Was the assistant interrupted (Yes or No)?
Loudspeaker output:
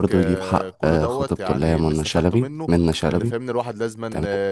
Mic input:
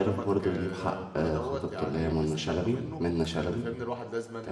No